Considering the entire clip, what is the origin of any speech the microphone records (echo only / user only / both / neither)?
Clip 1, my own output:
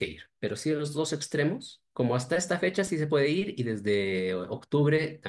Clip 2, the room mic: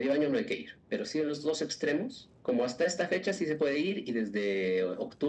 echo only